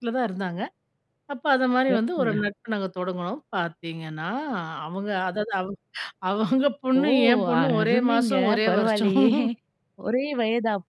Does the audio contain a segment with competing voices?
Yes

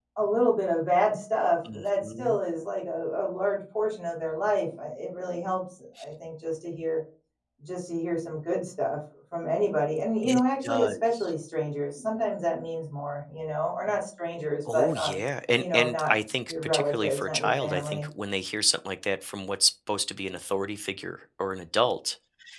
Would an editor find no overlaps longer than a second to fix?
No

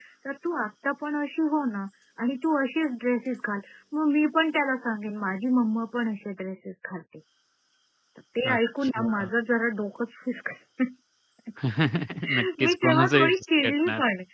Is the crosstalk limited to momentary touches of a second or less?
No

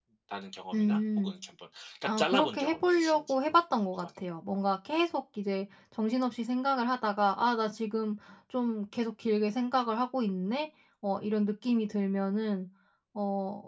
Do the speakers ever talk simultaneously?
Yes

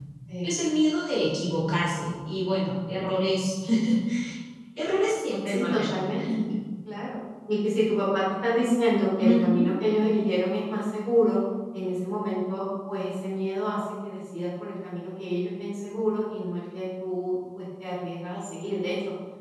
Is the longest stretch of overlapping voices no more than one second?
Yes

